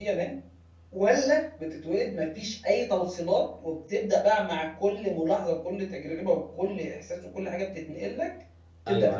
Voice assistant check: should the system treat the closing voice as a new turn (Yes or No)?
Yes